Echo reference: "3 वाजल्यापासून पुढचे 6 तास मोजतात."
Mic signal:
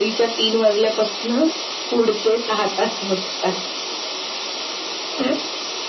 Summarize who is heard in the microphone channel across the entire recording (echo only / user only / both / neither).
echo only